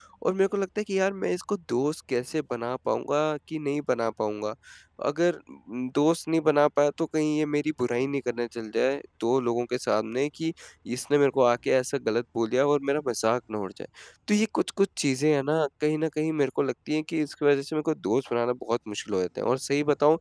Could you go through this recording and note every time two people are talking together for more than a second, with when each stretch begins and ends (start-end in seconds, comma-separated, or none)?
none